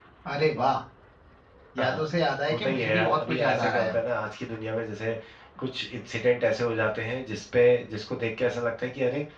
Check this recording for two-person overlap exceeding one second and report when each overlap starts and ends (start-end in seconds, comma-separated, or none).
2.5-3.9